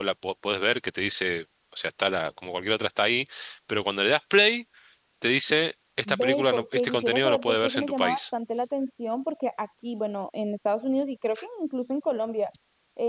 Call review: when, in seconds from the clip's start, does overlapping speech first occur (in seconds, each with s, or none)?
6.1 s